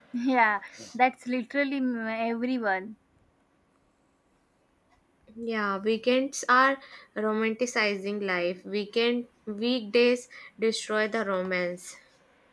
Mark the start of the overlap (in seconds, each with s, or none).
none